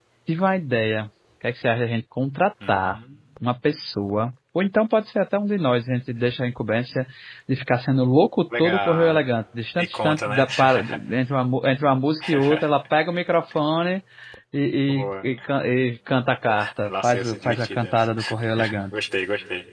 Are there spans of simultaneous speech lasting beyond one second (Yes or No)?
Yes